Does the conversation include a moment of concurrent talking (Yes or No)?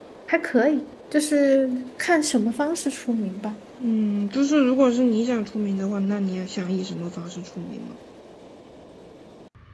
No